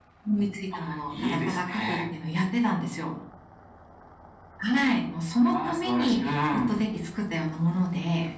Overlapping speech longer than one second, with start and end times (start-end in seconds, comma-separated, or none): 0.8-2.0, 5.5-6.8